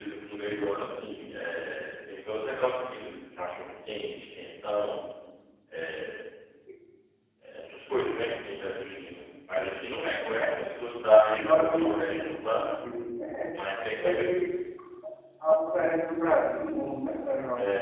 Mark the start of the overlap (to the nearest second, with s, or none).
11 s